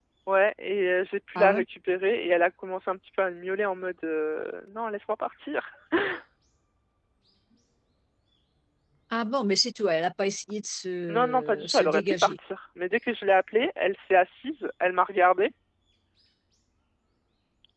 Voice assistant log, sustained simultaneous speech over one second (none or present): present